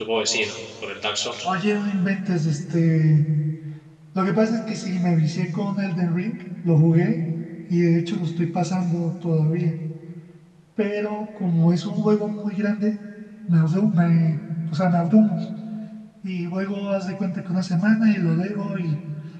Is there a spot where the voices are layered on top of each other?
No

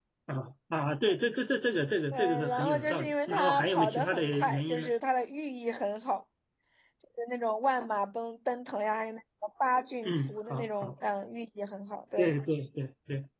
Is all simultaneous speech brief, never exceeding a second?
No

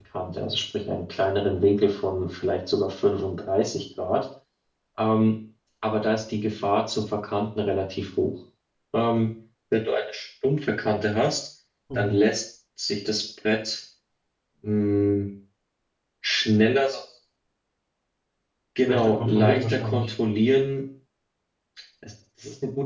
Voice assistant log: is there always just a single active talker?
No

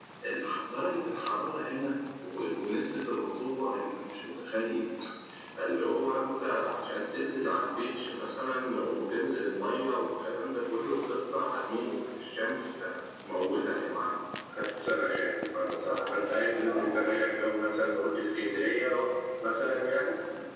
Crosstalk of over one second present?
No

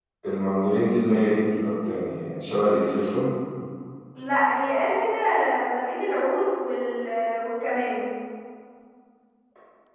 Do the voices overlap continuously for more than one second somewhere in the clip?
No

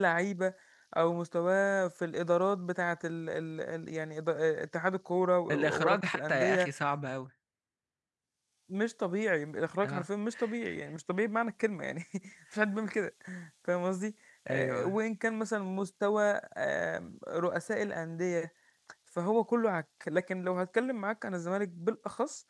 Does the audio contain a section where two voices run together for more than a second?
Yes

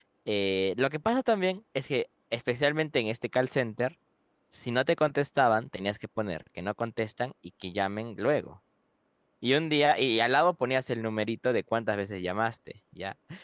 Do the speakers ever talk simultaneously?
No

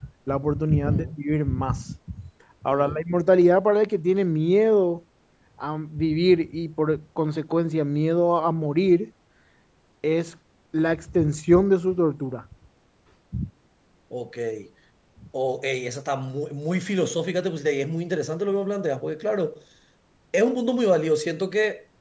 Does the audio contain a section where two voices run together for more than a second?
No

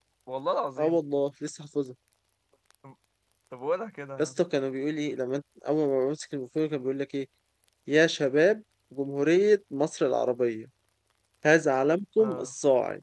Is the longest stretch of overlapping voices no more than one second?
Yes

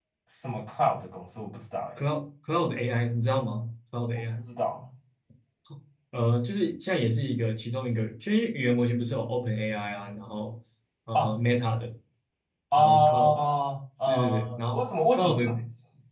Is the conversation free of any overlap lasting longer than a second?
No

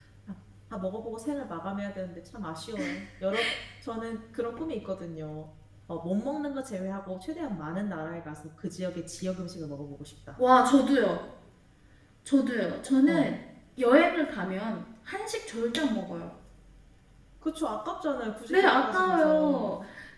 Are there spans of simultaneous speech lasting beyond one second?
Yes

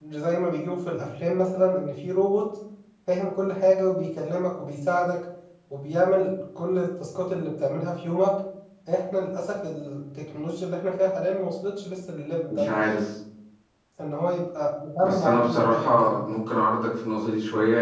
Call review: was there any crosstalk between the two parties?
Yes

